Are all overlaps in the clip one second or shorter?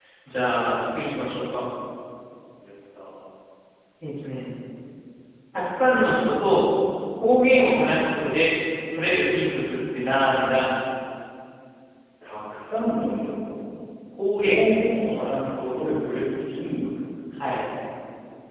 Yes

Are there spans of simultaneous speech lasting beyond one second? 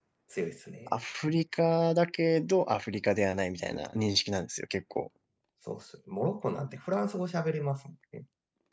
No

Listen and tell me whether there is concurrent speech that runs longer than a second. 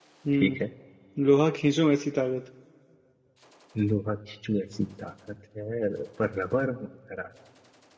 No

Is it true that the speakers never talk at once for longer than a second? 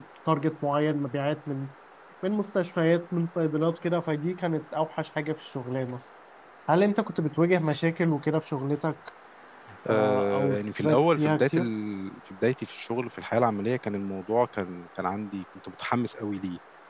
No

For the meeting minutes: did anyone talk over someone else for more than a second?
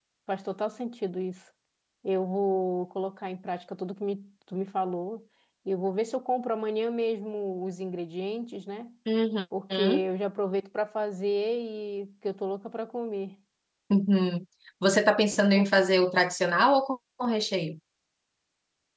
No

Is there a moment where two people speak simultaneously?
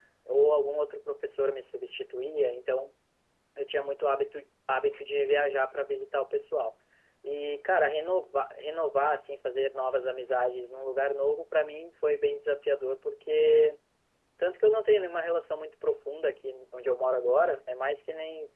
No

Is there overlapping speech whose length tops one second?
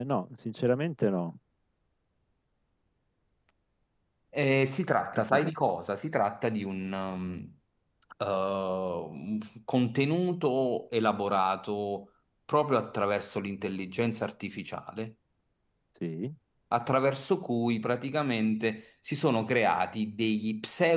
No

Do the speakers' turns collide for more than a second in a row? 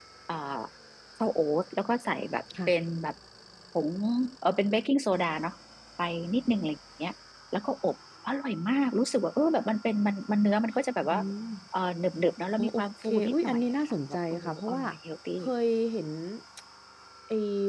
Yes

